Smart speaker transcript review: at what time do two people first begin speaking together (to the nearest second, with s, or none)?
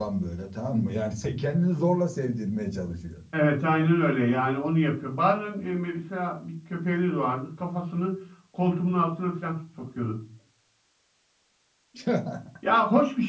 none